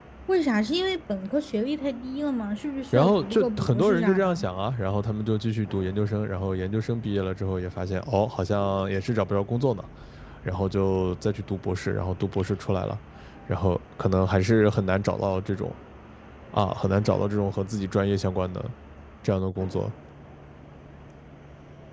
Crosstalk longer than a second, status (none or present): present